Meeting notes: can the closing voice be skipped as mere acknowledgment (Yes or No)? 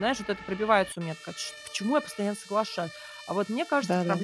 Yes